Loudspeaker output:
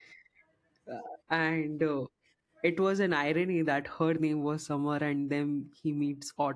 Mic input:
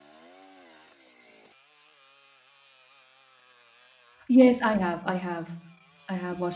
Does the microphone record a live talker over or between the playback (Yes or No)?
Yes